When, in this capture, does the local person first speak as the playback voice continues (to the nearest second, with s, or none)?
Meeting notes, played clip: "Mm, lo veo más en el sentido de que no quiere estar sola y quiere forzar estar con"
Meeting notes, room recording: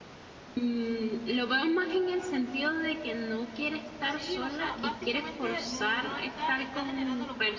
4 s